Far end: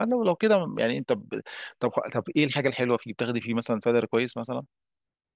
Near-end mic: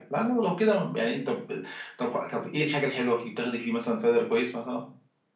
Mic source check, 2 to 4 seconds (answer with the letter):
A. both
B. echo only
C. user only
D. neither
B